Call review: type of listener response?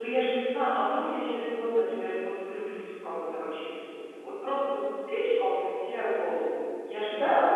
taking over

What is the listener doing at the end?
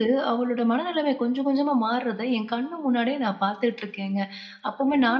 listening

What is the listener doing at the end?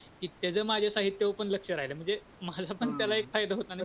taking over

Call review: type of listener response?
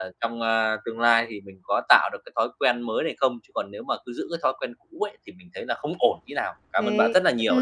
taking over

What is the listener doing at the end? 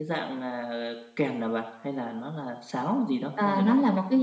taking over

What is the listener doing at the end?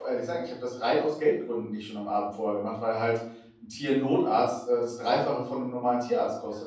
listening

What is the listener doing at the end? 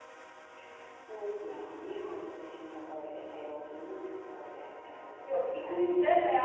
taking over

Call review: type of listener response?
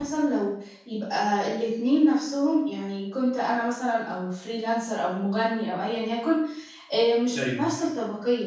listening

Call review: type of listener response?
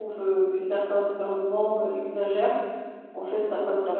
listening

